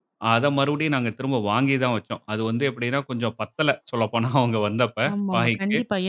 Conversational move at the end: taking over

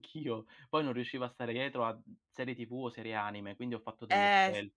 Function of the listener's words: taking over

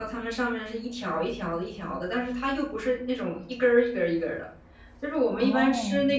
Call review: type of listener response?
listening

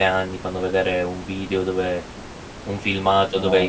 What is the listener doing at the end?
listening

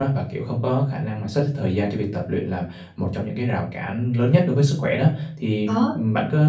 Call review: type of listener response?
listening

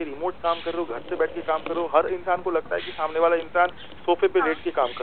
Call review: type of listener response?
listening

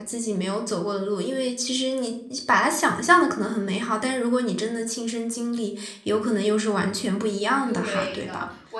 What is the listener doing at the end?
taking over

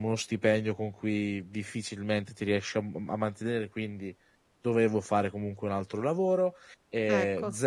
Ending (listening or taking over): listening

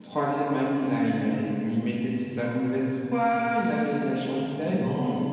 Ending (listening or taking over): taking over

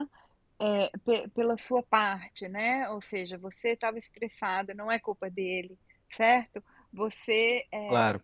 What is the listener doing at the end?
listening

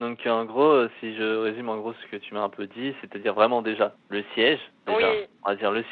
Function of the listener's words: listening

